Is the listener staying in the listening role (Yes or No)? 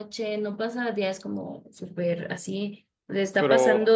Yes